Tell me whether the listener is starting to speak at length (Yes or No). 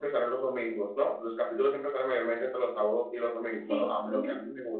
No